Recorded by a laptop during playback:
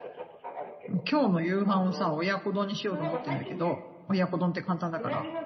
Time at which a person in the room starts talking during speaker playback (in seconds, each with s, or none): 0.9 s